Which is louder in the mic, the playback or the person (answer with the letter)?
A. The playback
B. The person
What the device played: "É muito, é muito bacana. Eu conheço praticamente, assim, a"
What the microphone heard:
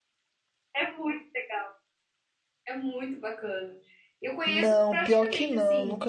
B